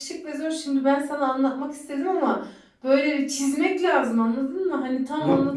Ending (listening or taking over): taking over